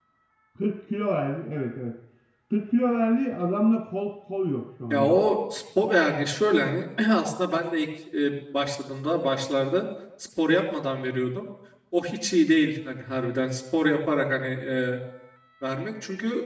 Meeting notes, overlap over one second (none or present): none